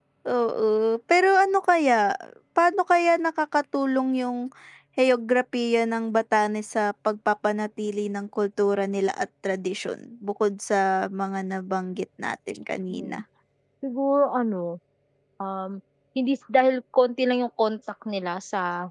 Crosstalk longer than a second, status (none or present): none